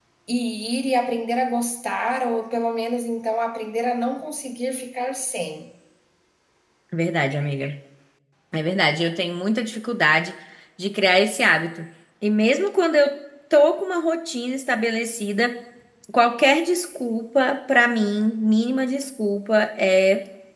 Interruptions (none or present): none